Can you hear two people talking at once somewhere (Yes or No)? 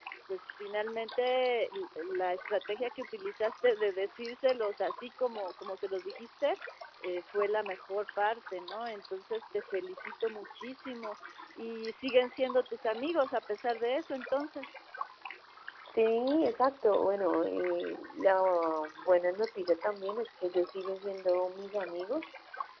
No